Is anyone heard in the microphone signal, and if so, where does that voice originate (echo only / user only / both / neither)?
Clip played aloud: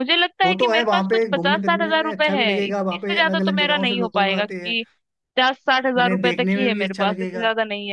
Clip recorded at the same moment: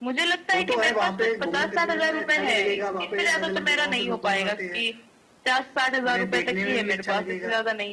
echo only